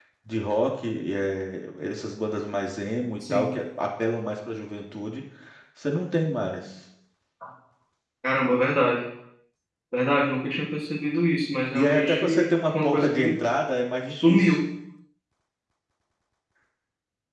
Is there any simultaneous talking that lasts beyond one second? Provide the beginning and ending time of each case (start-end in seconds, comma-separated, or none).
11.7-13.4